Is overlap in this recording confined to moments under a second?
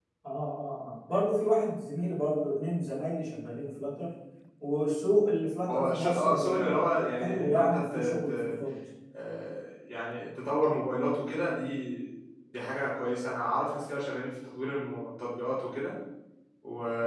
No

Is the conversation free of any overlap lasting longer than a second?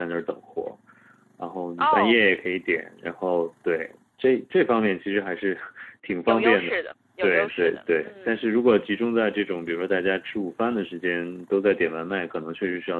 No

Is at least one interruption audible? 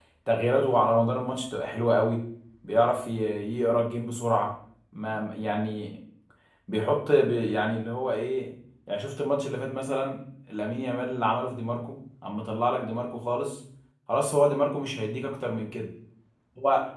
No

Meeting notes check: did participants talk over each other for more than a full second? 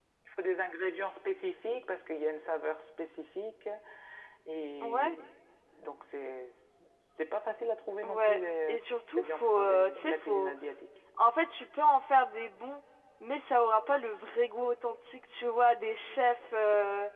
Yes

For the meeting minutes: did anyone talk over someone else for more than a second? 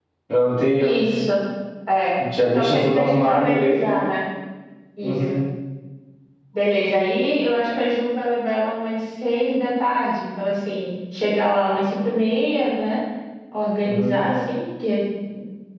Yes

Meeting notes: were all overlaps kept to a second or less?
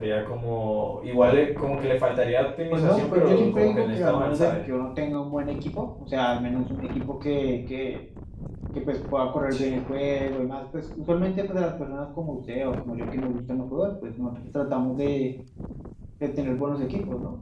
No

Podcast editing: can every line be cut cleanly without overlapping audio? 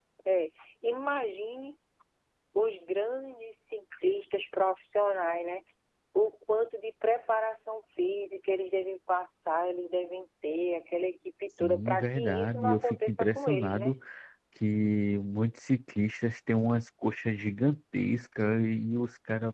No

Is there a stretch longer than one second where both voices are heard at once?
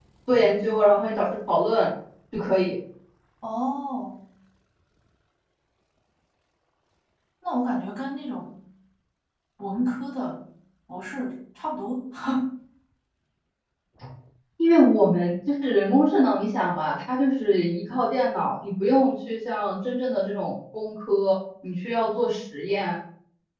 No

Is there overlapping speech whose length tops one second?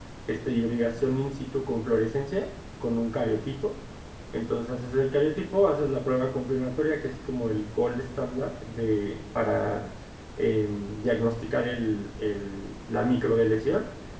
No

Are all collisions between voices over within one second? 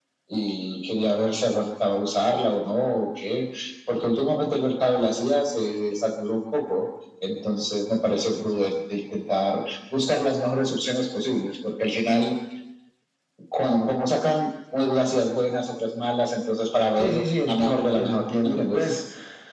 No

